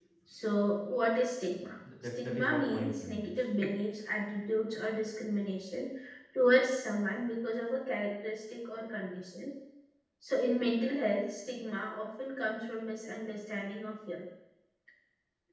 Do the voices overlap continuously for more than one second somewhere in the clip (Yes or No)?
Yes